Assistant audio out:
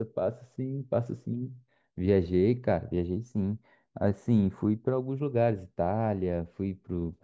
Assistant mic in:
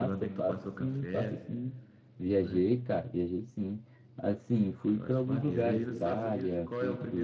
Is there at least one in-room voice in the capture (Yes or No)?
Yes